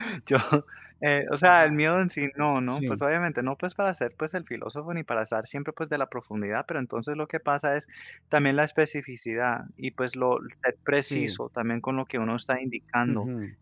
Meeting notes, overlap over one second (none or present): none